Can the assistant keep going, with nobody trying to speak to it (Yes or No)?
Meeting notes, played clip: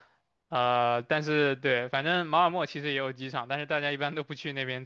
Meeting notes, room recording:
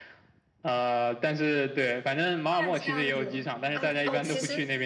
No